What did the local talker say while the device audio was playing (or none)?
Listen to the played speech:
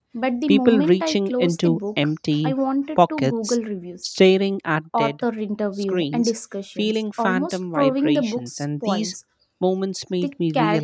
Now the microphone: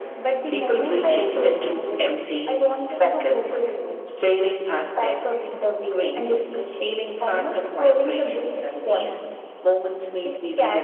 none